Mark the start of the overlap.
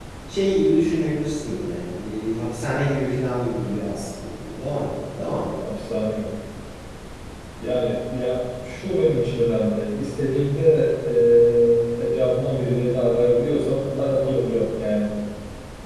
none

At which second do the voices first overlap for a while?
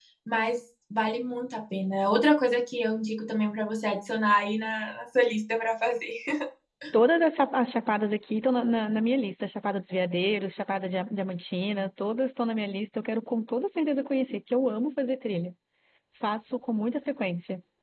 none

